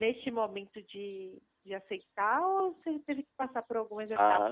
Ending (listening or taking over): taking over